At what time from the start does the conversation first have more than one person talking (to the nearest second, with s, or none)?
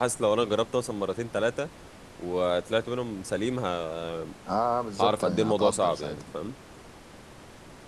5 s